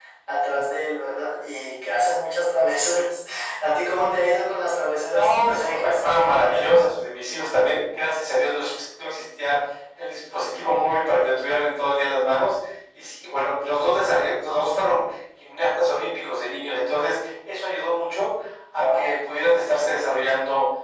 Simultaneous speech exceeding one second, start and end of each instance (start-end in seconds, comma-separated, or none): 5.1-6.9